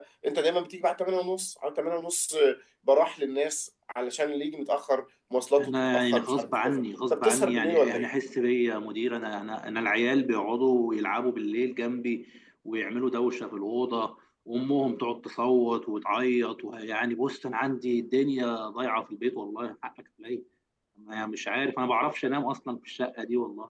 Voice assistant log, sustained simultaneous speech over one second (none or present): present